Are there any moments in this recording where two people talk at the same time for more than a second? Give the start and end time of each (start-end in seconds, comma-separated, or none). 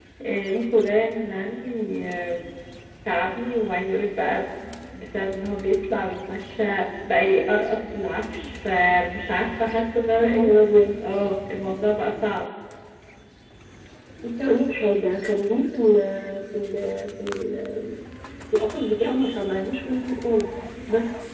none